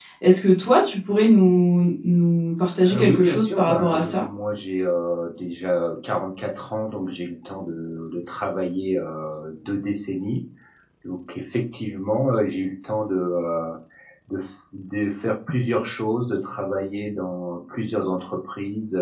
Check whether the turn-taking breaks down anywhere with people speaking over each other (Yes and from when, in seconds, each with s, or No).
Yes, from 2.9 s